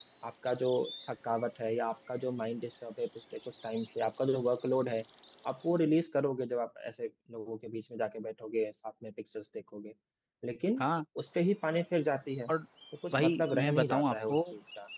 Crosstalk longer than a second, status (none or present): present